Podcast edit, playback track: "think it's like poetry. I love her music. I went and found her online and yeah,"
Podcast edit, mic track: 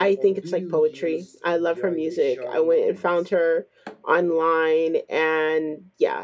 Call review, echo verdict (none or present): present